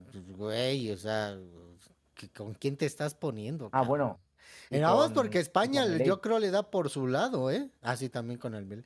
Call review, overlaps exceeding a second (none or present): present